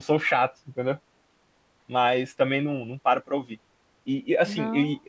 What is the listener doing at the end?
listening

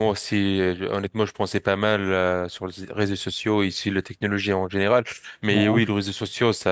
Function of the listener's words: listening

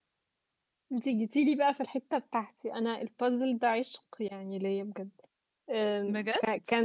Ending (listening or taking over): listening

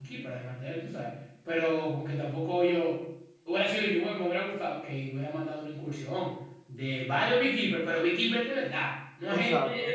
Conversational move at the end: taking over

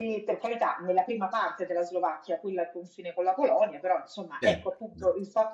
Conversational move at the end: listening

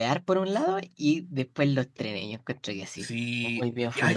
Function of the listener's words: taking over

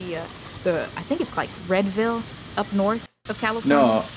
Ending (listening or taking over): taking over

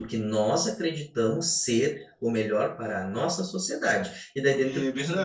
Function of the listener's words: listening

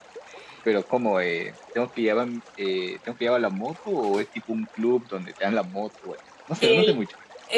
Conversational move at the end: taking over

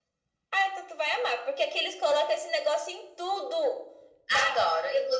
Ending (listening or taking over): taking over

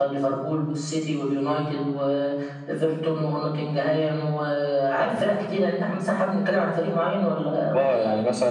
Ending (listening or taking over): taking over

